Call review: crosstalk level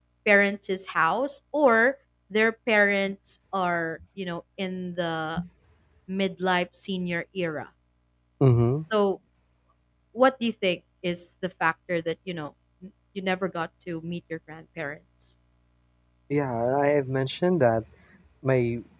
none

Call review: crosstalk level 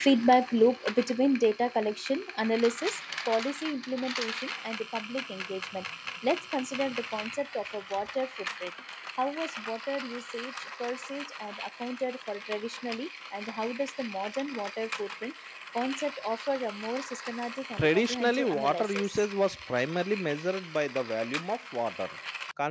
present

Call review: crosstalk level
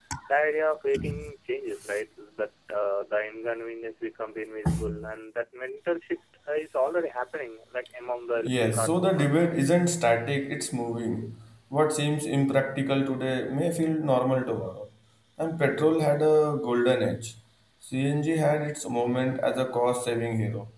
present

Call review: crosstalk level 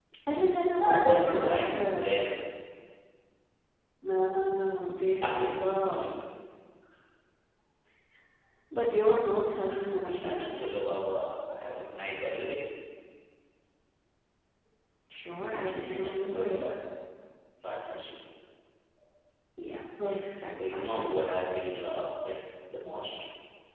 present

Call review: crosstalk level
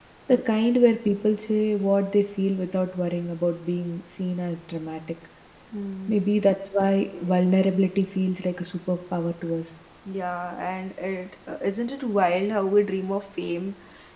none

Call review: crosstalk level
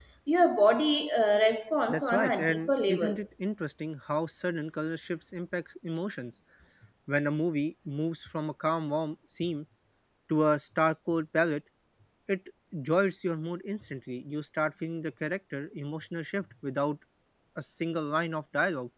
present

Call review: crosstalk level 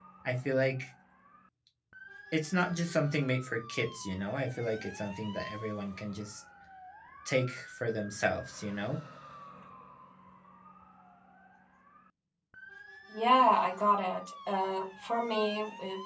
none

